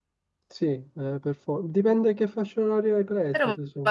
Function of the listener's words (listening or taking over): taking over